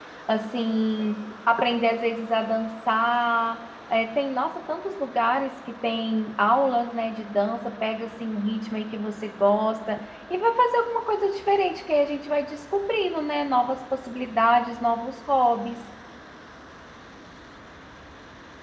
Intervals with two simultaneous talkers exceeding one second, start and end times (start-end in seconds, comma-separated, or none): none